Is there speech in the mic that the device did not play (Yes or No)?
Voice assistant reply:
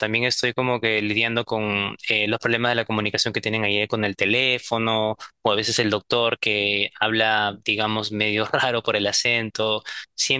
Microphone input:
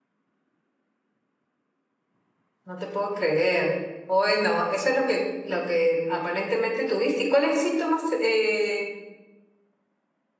Yes